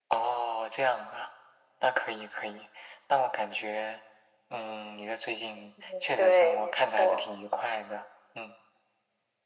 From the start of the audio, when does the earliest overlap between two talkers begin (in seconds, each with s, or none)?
6.0 s